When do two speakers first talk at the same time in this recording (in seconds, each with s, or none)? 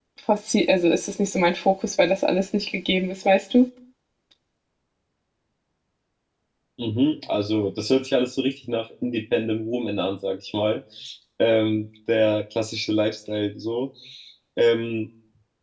none